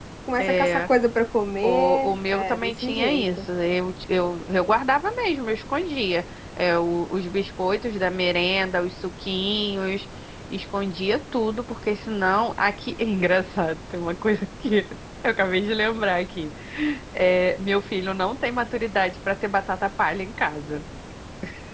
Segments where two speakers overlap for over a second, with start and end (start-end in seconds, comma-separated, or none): 1.6-3.5